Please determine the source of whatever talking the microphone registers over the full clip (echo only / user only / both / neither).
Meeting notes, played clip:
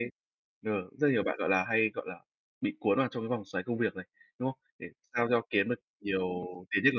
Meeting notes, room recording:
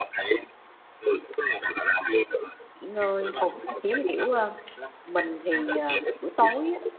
both